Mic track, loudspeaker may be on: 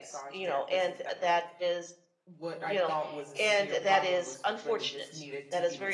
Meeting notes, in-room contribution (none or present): present